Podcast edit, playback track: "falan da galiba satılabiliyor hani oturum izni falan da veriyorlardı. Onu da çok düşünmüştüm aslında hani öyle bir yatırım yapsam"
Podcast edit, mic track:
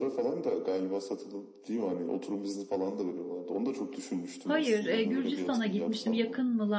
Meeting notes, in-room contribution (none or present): present